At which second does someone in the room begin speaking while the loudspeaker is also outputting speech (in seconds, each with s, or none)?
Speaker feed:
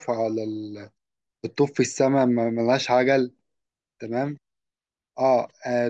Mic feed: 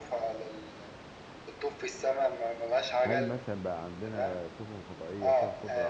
3.0 s